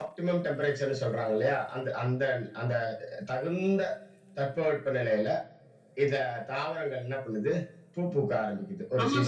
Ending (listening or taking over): taking over